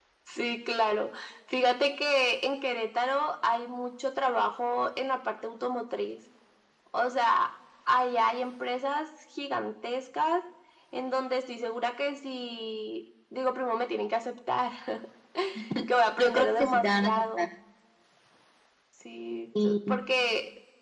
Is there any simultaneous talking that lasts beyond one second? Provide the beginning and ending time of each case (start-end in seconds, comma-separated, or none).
16.2-17.5